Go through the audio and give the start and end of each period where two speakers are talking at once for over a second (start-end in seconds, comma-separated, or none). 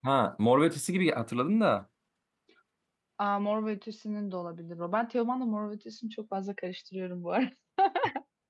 none